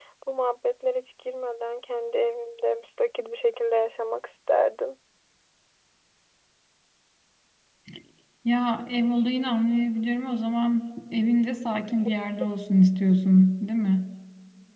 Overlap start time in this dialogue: none

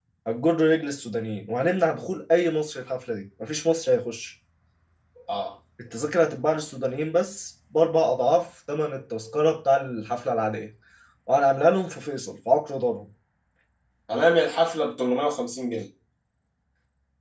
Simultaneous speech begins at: none

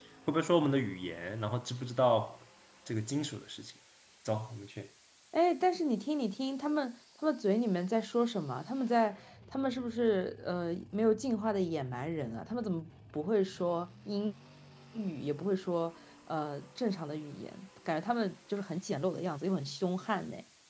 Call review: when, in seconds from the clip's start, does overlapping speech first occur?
none

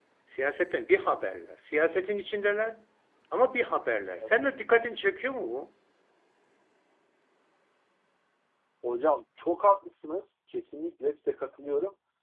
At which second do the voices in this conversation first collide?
none

